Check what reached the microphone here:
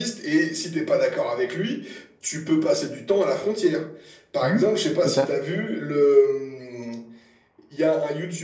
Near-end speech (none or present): present